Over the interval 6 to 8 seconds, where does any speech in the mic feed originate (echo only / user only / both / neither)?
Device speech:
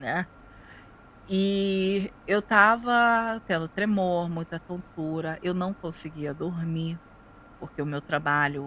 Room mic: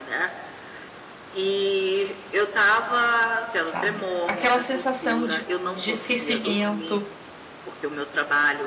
both